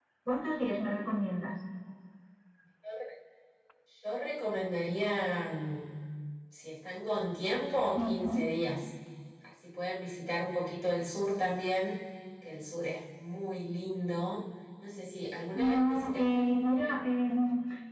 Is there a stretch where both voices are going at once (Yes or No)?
Yes